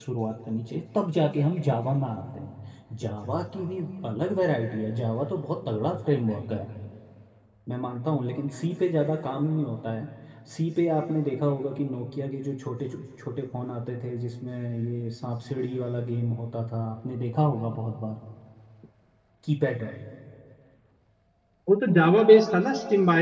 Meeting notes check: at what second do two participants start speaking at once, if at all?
none

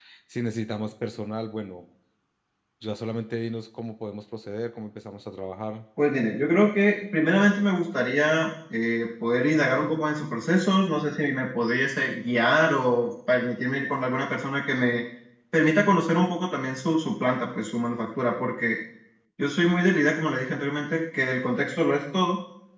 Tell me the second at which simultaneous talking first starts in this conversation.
none

